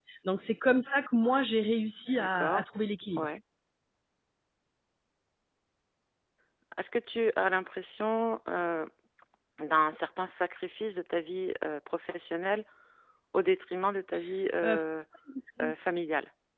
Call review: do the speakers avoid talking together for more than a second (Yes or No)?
Yes